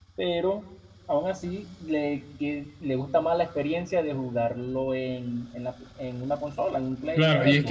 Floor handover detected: Yes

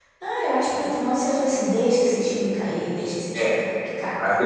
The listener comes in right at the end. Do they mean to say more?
Yes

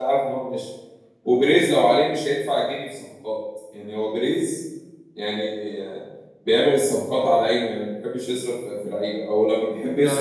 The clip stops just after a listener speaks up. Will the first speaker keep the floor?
No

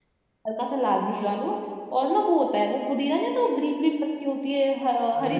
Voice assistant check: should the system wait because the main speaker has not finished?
No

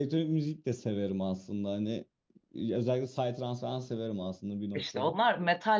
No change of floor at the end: No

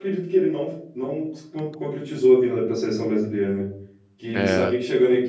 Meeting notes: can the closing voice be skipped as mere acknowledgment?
Yes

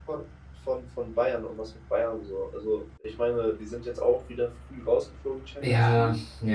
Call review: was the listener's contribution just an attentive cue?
No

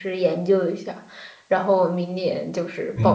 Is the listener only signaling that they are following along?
No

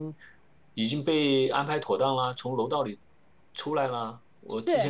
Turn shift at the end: Yes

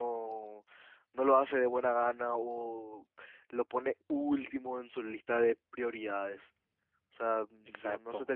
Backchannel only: Yes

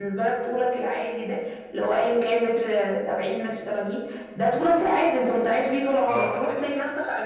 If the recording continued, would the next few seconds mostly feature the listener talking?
No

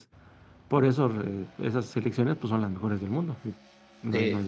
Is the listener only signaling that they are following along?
No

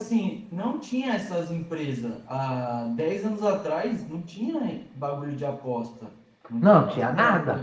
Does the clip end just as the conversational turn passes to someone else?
Yes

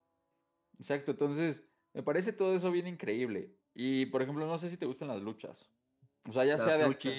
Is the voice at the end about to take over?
No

